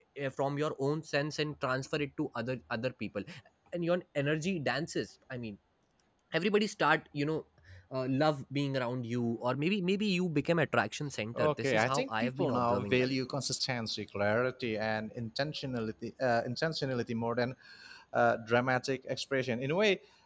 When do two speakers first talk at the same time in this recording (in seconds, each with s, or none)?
11.4 s